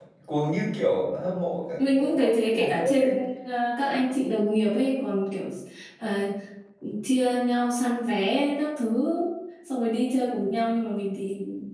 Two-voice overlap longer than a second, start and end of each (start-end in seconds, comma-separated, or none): 1.8-3.0